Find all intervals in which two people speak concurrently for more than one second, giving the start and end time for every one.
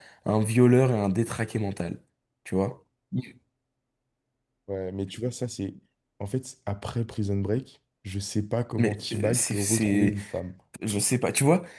8.8-10.1

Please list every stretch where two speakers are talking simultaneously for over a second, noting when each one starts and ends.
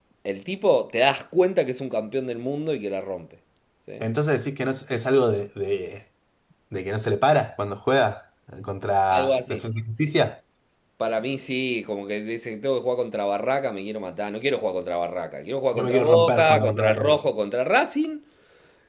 15.8-17.1

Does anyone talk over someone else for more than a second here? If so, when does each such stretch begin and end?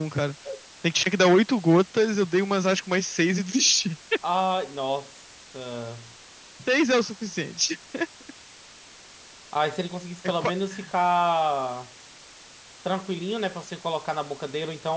none

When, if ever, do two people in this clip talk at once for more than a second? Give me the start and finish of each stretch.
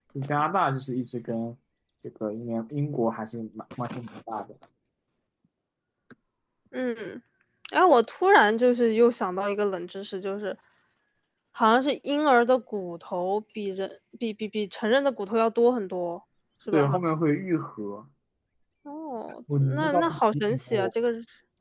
19.6-20.9

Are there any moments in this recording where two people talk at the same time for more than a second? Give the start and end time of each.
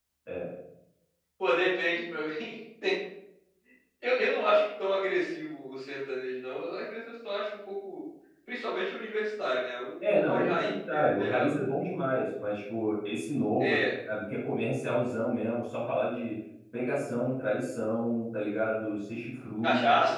10.1-11.5

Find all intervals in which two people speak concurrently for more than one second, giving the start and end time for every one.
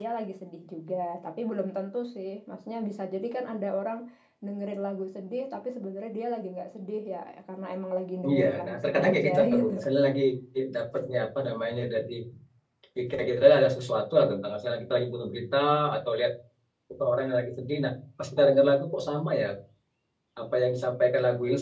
8.3-9.7

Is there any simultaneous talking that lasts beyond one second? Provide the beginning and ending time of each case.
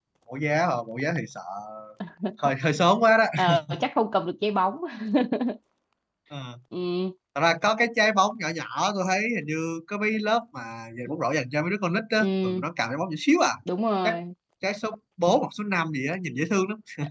none

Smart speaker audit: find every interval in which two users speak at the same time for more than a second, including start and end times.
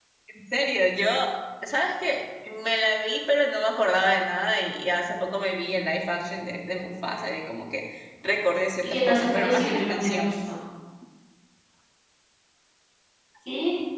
8.8-10.4

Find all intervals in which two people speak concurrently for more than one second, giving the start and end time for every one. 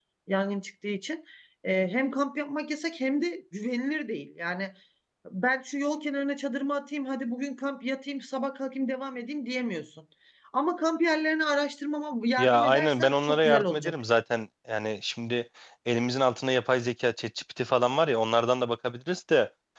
12.4-14.0

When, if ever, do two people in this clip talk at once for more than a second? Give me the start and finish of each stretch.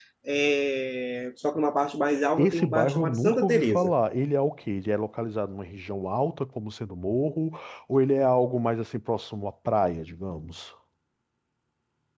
2.4-3.9

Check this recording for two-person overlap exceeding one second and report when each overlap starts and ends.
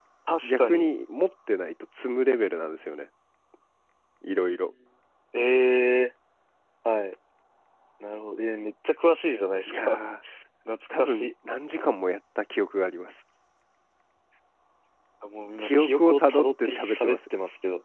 15.6-17.2

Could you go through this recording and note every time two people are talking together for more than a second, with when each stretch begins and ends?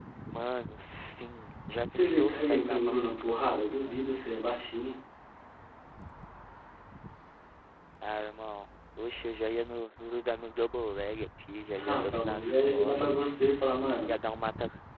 1.9-4.0, 11.8-13.4

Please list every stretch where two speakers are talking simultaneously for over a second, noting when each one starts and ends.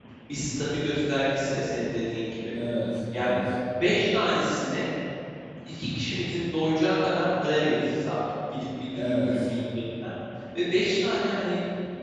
none

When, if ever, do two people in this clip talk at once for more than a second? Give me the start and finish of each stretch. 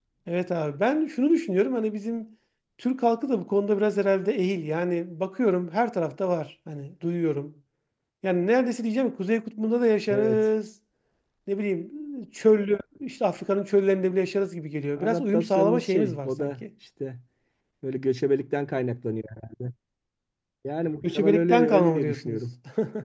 15.0-16.5, 21.0-22.4

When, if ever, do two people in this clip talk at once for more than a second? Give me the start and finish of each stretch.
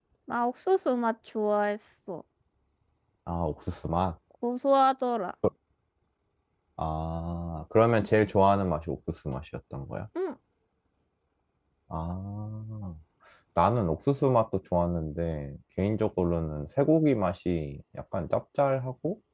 none

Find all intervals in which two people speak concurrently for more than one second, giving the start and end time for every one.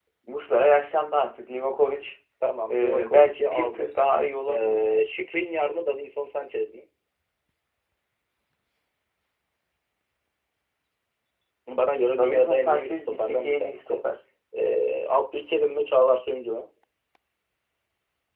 2.7-3.9, 12.2-14.0

